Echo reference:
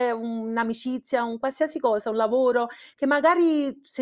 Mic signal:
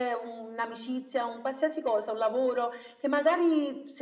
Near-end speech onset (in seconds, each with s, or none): none